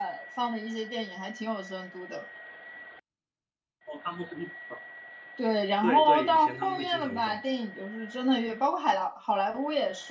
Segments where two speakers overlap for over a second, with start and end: 5.8-7.4

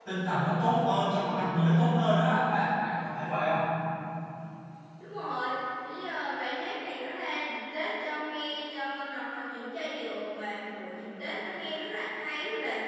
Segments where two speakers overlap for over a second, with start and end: none

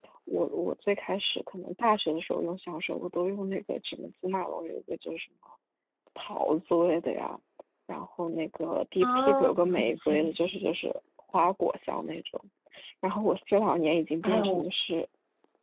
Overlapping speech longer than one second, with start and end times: 9.0-10.5

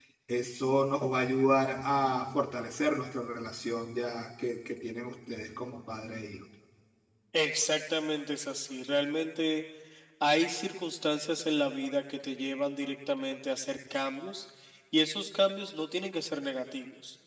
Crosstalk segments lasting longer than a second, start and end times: none

